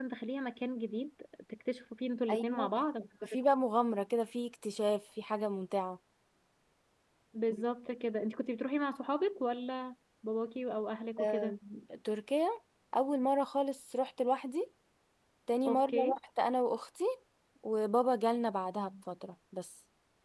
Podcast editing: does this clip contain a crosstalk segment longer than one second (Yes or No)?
No